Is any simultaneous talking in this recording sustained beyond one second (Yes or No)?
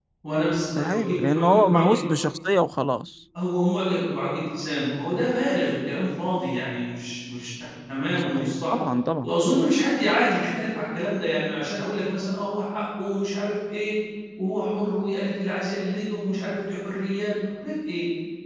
Yes